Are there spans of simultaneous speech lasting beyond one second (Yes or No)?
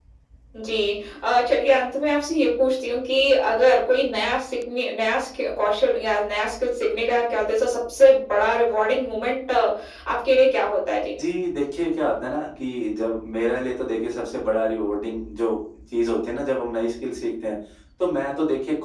No